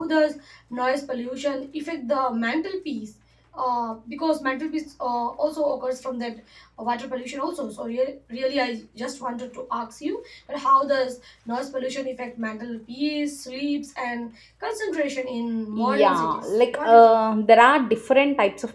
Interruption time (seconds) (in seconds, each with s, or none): 15.7 s